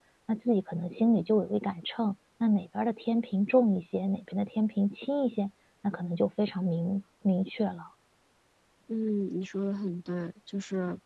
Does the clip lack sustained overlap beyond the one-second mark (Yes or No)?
Yes